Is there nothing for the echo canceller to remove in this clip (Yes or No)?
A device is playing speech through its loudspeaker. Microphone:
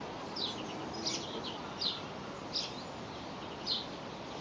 Yes